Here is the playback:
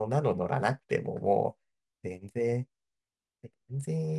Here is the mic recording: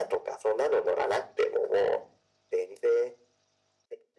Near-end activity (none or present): none